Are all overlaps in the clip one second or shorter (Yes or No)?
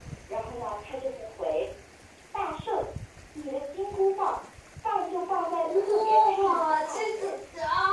No